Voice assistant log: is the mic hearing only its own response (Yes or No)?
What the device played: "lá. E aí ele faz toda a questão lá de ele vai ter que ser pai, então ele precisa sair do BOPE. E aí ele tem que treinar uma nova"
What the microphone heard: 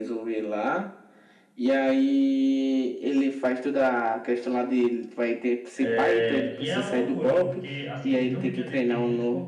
No